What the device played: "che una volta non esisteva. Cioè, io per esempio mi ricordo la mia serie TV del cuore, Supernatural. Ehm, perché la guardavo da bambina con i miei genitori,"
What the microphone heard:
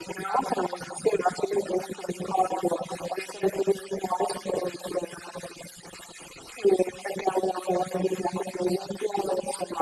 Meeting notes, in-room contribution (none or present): none